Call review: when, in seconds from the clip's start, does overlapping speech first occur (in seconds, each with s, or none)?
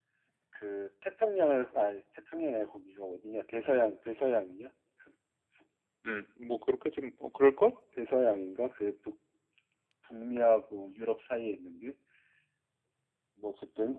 none